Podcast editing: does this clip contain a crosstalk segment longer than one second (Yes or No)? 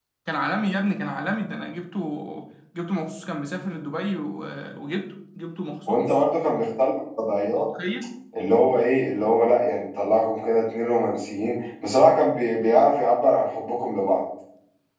No